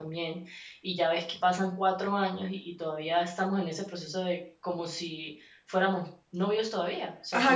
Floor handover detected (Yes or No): Yes